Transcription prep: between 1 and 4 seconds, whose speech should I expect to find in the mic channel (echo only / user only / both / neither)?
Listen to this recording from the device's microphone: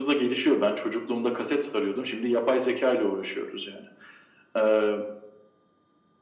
echo only